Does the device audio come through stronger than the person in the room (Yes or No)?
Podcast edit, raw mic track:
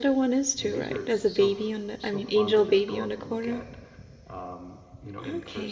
No